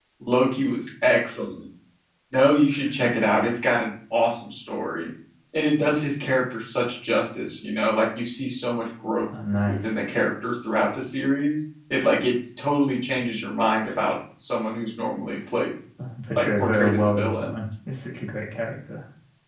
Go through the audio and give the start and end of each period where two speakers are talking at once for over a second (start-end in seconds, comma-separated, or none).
16.3-17.5